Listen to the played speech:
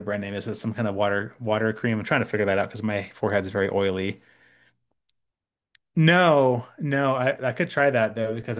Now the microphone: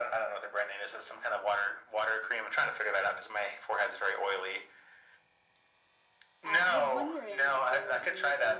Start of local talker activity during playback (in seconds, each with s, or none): 6.4 s